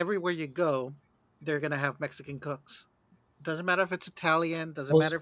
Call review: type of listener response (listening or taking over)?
listening